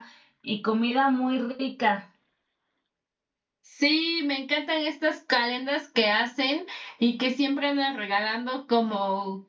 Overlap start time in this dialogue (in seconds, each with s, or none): none